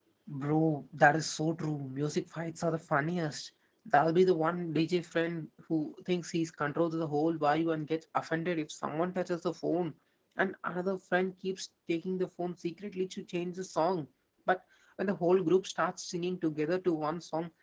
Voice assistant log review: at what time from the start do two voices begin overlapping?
none

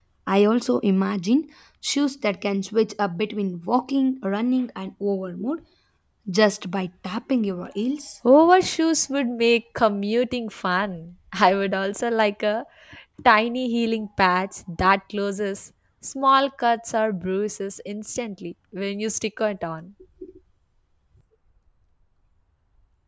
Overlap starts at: none

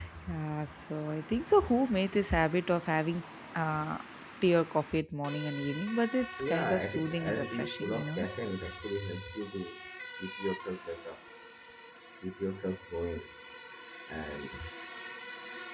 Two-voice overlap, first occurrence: 6.4 s

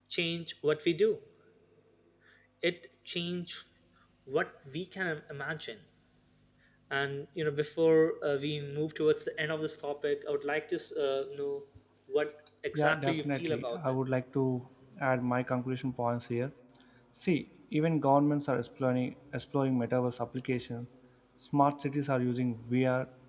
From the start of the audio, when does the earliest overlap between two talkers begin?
12.7 s

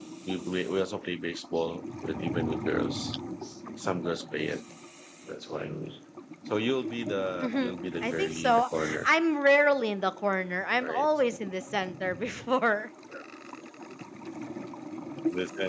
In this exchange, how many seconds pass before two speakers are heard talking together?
7.4 s

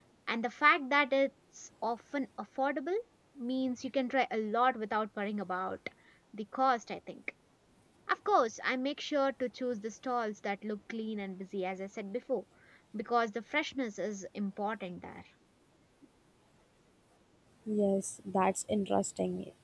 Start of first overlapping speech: none

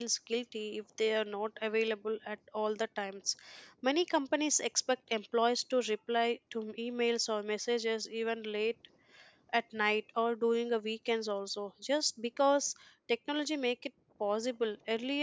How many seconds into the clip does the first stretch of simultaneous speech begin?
none

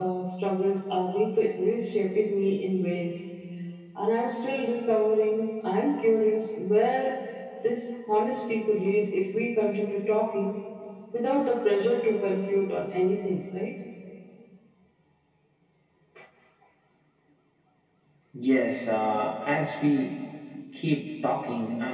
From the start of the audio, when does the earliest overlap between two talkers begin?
none

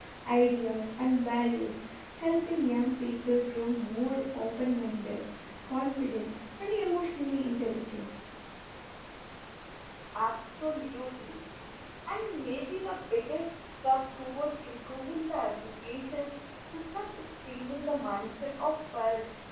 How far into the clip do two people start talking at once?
none

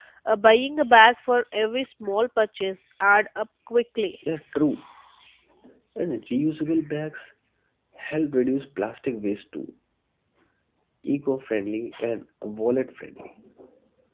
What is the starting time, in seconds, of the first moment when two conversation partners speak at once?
none

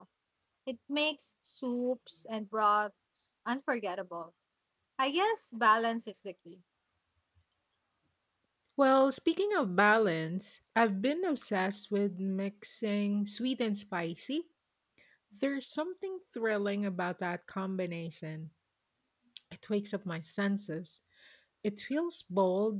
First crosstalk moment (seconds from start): none

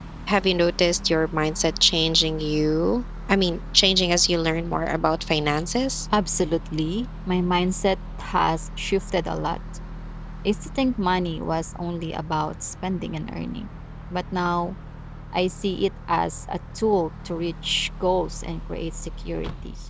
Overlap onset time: none

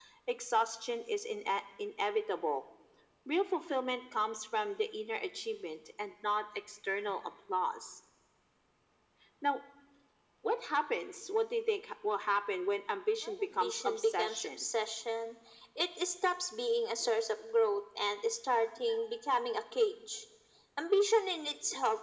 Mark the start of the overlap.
13.2 s

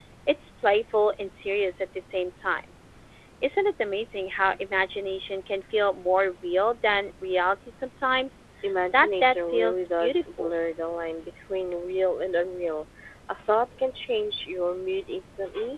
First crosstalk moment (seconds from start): 8.9 s

